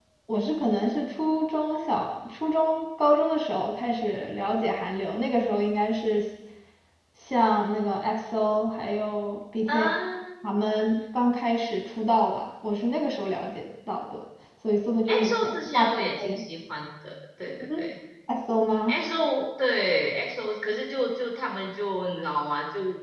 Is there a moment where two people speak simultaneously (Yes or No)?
Yes